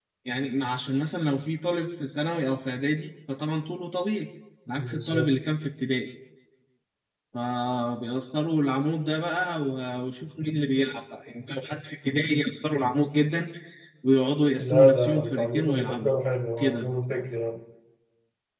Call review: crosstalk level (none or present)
present